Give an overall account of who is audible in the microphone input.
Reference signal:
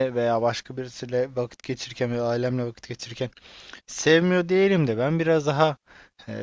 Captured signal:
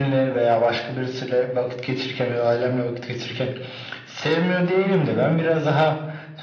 echo only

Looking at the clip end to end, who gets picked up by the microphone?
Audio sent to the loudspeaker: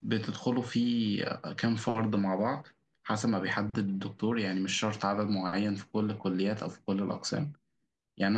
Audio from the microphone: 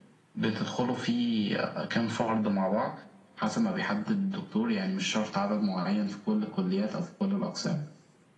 echo only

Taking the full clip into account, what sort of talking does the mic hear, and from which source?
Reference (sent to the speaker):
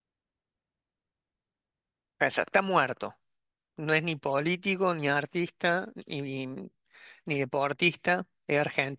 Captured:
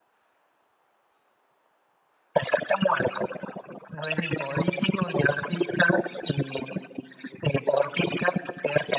echo only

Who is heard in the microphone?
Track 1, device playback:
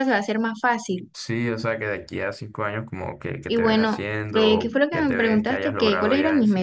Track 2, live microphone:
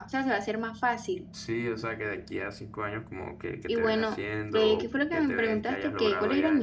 echo only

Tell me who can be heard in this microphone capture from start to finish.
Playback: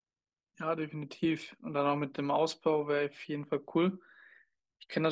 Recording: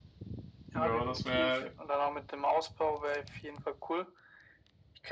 both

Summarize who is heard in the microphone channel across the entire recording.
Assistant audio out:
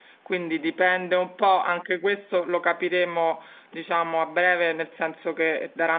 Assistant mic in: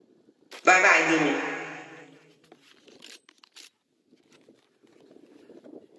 user only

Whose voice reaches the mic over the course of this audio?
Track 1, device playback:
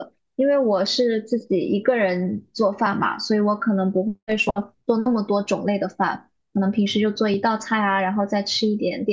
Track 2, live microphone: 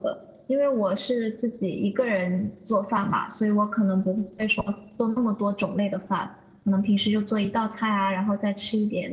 echo only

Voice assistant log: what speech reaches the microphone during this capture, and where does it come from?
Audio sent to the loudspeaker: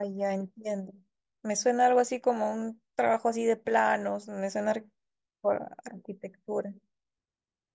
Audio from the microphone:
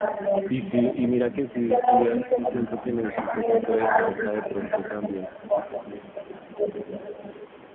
both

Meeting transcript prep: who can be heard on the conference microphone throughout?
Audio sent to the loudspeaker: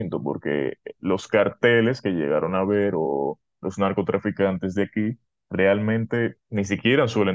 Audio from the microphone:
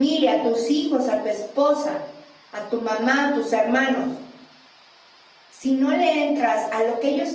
user only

